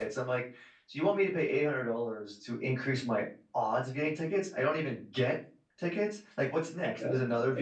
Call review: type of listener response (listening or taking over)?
listening